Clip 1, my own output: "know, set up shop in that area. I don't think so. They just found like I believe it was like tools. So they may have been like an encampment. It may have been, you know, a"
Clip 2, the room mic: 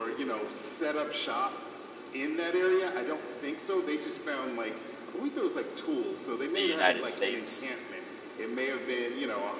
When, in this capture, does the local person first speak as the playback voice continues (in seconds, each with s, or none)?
6.5 s